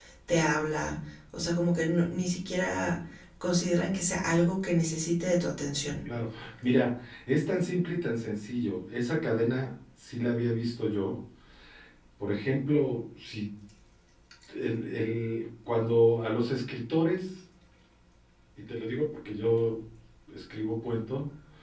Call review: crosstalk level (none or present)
none